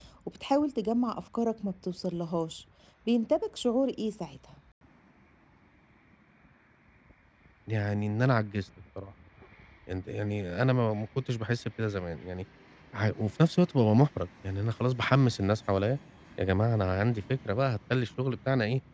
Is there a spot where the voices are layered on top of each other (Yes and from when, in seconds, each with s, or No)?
No